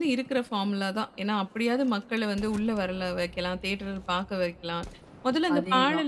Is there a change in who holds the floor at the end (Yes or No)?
No